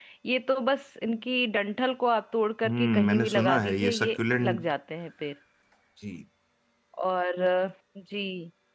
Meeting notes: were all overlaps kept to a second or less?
No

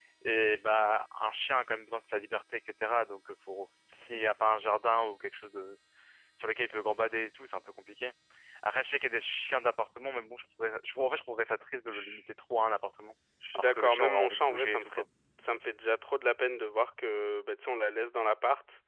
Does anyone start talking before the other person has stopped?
Yes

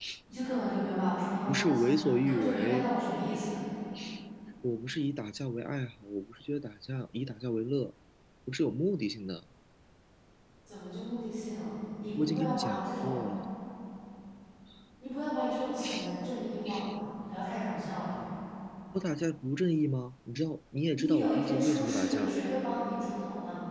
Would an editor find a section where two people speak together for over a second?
Yes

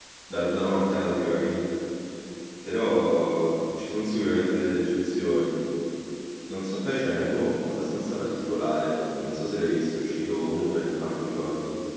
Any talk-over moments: No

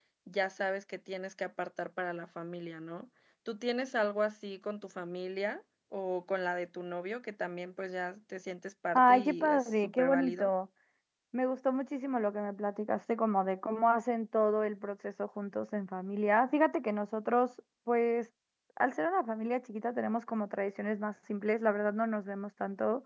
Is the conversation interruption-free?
No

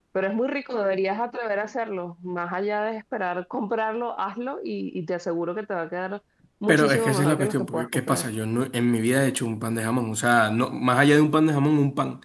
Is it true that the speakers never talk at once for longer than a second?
No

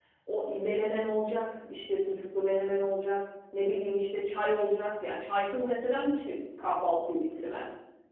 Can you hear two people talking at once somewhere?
No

